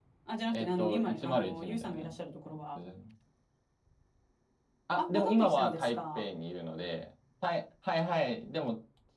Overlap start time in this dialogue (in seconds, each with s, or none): 0.5 s